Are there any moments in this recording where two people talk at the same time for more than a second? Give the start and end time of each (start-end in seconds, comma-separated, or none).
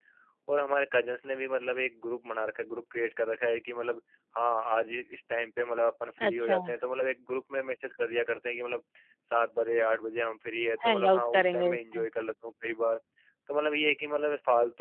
10.8-12.1